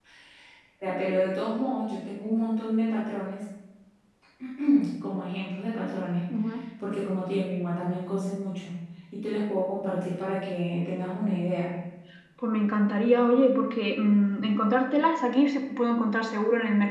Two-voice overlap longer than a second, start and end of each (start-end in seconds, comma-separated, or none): none